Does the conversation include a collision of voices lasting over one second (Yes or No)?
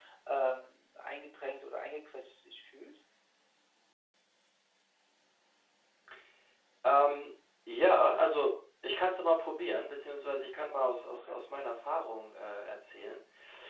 No